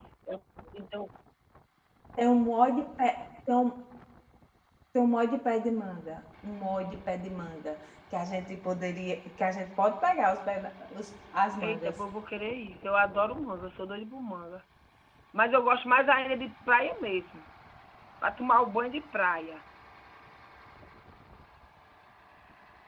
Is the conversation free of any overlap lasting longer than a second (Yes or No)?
Yes